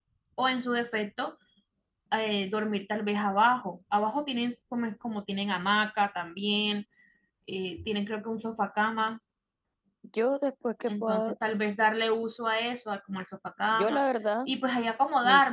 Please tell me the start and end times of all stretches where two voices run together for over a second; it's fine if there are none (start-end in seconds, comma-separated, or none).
none